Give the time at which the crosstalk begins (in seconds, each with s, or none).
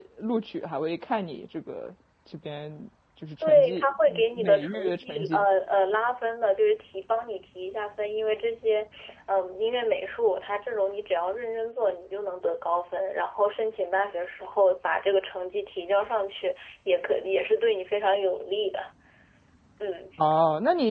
3.4 s